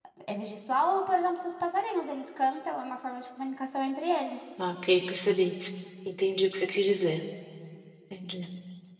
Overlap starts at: none

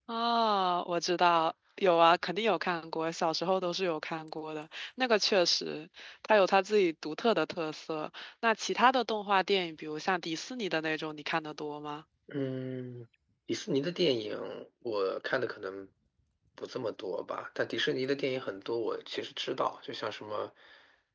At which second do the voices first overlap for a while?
none

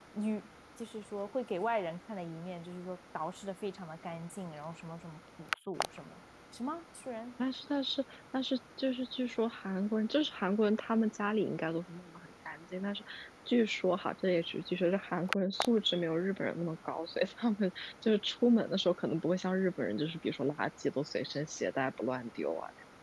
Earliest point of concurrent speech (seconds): none

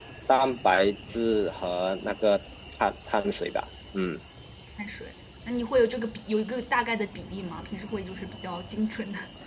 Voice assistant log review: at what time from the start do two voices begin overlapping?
none

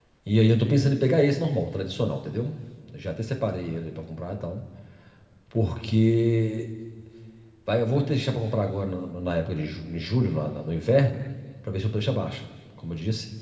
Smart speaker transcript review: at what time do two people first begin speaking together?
none

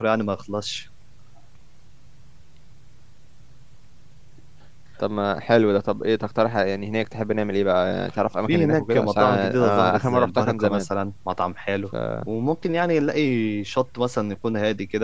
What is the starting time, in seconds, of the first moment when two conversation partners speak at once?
8.5 s

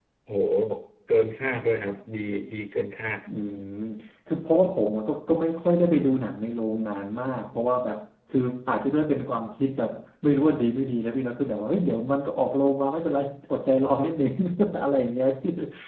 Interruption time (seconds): none

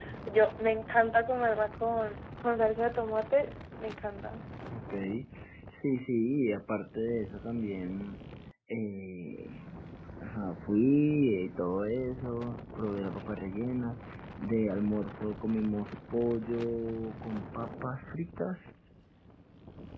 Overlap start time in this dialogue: none

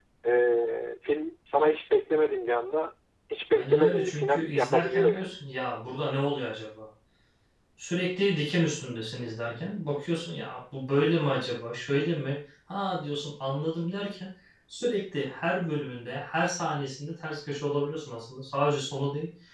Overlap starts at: 3.6 s

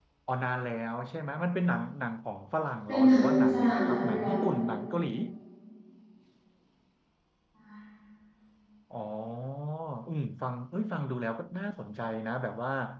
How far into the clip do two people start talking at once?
2.9 s

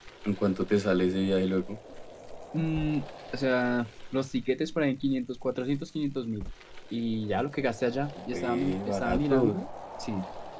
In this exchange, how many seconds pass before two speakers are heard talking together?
8.2 s

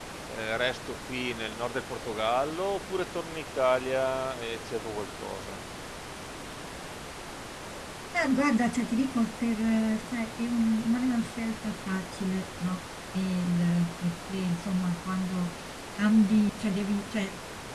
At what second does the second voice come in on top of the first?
none

